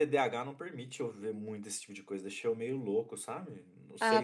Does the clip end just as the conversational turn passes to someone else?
Yes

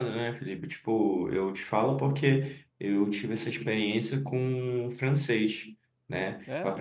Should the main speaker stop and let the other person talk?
No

